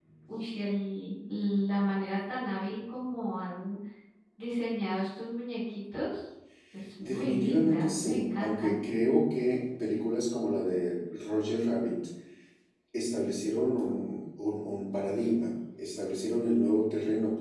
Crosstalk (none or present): present